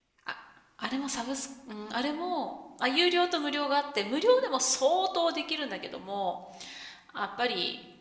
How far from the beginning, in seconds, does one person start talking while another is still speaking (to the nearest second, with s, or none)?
none